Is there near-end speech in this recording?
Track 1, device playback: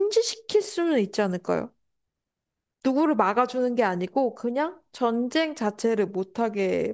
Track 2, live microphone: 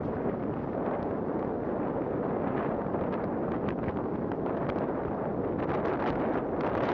No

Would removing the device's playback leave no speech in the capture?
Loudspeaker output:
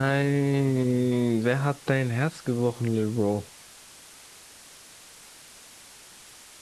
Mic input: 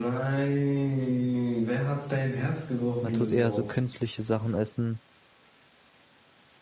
No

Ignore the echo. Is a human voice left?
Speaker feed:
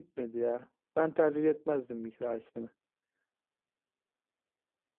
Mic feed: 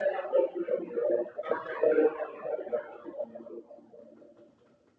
No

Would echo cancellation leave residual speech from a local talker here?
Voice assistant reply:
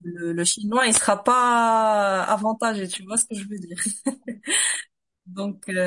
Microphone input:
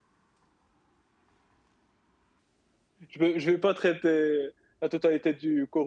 Yes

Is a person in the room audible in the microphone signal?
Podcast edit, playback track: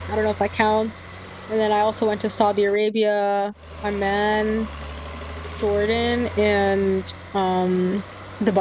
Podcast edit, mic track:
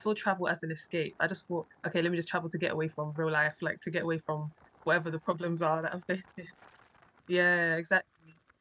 Yes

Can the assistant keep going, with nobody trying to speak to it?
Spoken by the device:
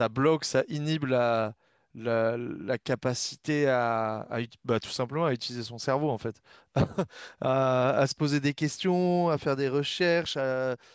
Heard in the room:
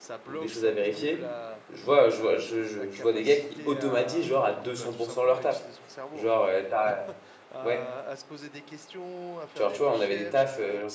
No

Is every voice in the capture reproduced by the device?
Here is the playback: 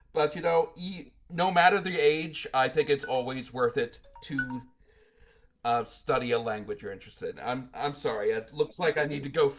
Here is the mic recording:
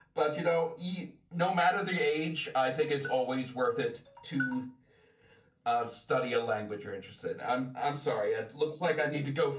Yes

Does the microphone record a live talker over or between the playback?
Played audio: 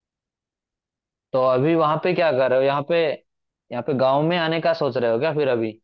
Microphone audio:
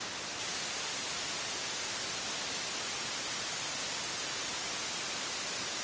No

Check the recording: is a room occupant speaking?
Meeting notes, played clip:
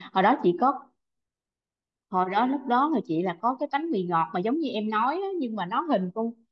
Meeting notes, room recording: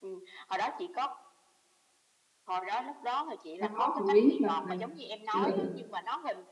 Yes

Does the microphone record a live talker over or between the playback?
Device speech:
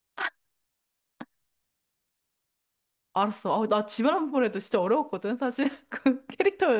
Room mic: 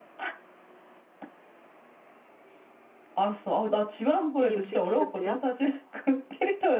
Yes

